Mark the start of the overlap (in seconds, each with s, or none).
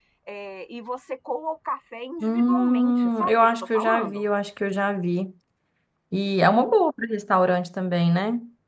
2.2 s